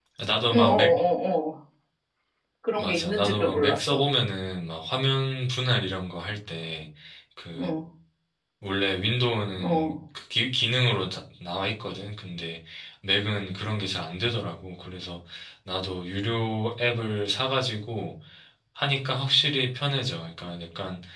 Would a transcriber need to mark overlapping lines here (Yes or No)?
Yes